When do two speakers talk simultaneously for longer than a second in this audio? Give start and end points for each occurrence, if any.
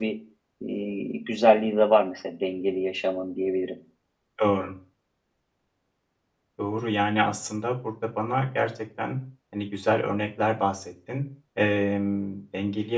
none

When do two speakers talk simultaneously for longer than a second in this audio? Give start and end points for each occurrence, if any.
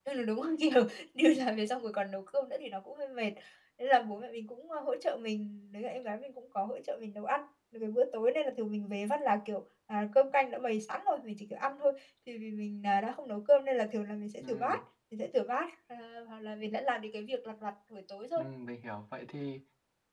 none

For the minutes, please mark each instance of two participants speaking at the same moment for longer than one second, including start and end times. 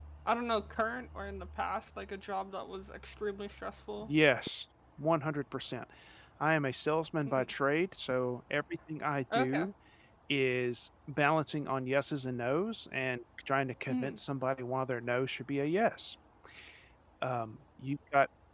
none

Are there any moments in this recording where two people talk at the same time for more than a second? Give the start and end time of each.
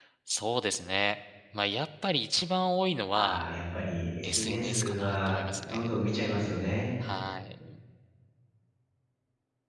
4.2-6.0

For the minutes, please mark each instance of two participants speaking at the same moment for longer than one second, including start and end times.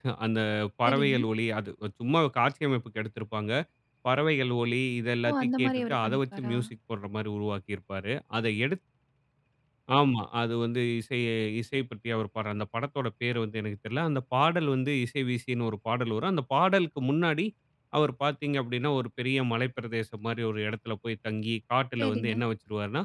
5.3-6.6

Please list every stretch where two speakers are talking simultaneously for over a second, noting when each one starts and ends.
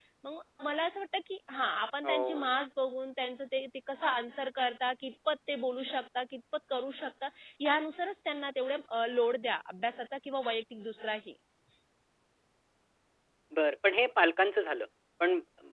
none

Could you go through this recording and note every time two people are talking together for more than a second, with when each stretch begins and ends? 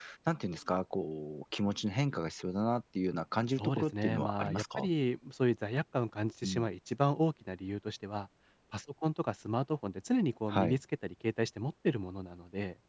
3.6-4.9

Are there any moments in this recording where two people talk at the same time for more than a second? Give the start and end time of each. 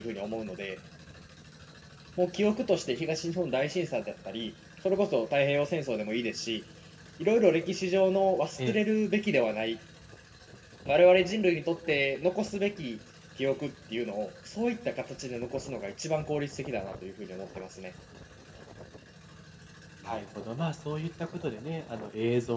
none

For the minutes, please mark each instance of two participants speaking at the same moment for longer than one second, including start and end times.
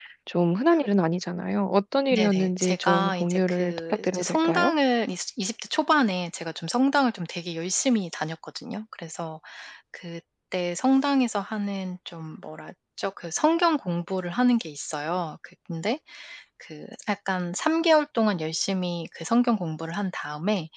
2.1-4.7

